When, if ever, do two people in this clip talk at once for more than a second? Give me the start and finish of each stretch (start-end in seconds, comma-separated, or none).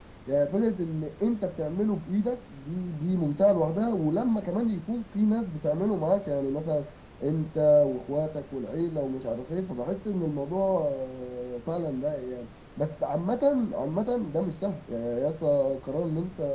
none